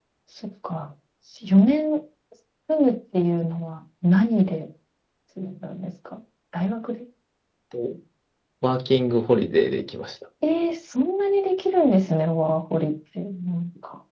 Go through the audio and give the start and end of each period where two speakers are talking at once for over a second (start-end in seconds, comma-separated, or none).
none